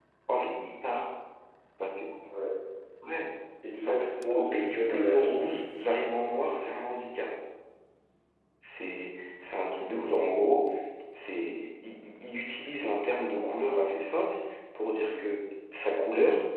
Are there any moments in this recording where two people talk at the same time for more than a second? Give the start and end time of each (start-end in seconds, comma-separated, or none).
3.8-5.3